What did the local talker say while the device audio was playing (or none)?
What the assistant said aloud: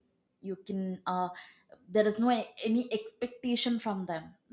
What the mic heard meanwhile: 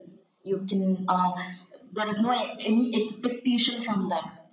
none